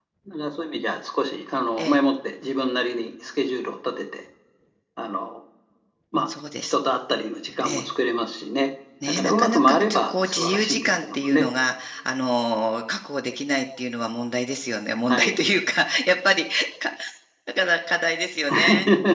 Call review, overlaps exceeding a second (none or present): present